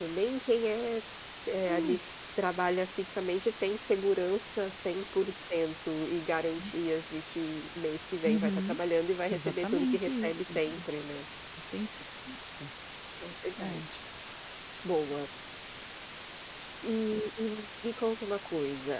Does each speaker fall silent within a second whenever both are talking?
No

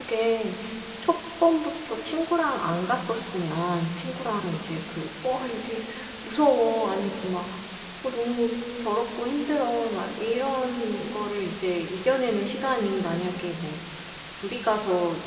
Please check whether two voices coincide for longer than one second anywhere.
No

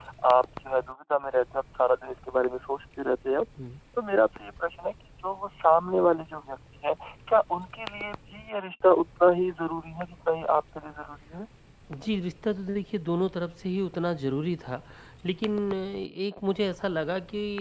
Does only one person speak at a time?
Yes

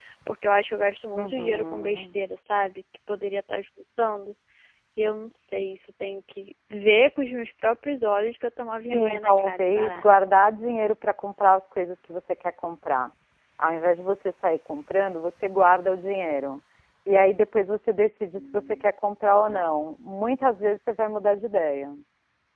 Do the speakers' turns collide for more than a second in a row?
Yes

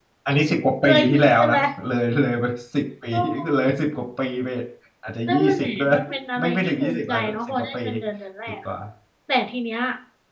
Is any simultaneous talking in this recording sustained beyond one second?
Yes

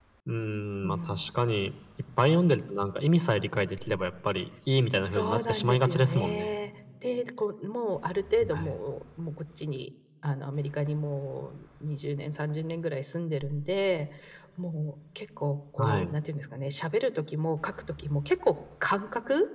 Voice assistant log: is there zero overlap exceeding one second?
No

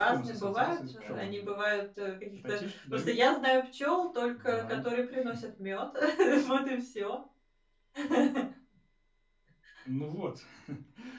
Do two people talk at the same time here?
Yes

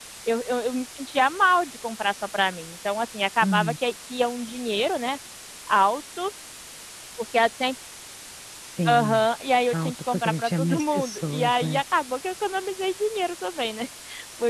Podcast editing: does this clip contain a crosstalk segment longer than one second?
Yes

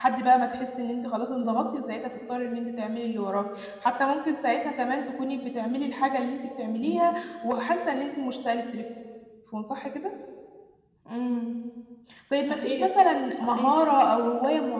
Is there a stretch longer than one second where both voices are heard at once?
No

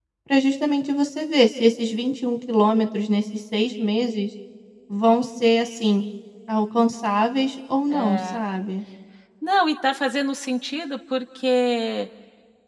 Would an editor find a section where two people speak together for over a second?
No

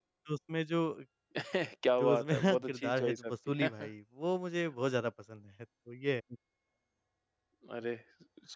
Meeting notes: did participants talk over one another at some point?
Yes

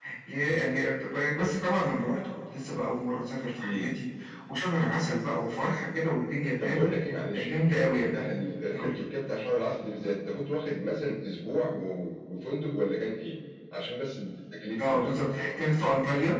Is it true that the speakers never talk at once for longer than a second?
Yes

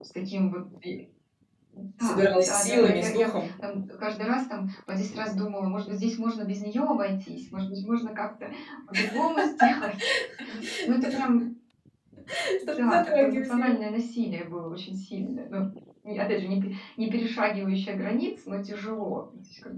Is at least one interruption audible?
Yes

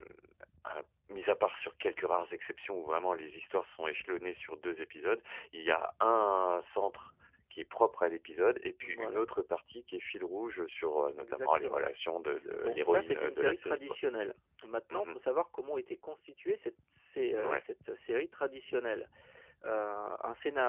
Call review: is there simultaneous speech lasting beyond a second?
Yes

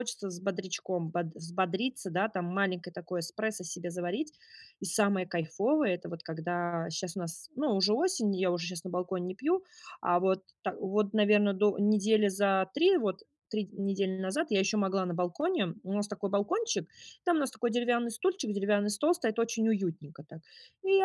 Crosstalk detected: No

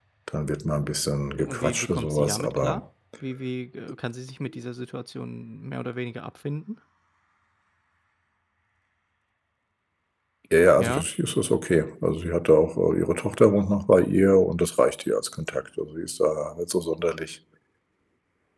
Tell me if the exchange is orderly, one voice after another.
No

